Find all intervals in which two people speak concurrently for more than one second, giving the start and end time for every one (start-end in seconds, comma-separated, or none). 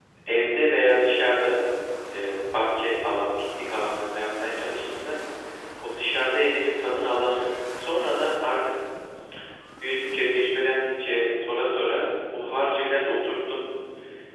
none